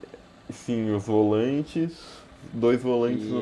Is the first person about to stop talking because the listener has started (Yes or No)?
No